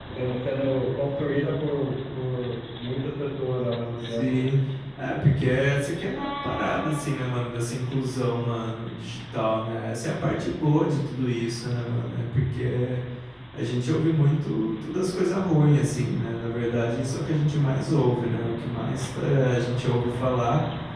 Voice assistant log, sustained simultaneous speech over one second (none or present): none